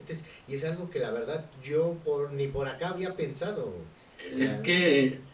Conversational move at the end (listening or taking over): taking over